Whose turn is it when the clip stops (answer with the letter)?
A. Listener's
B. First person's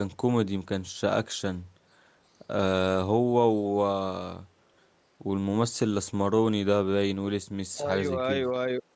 A